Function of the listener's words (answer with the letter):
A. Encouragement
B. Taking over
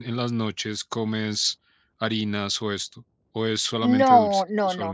B